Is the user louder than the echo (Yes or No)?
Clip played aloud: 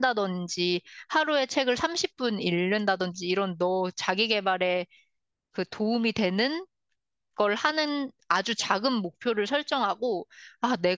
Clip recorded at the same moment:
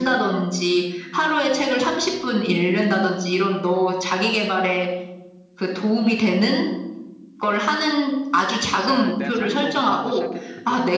No